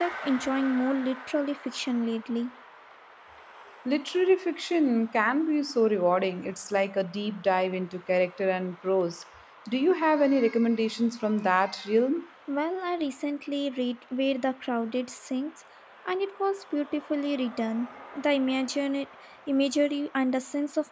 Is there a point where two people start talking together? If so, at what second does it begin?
none

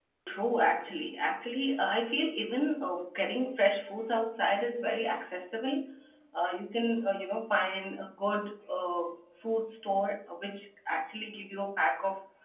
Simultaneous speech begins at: none

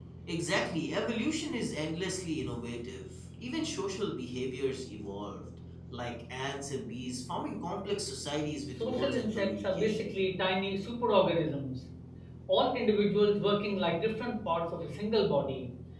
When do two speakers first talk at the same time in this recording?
8.8 s

